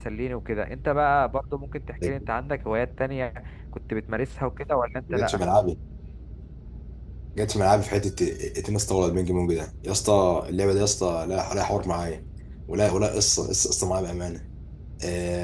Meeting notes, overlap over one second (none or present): none